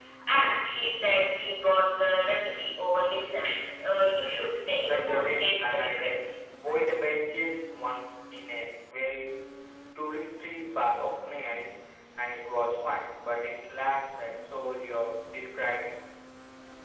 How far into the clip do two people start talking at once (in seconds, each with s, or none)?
4.8 s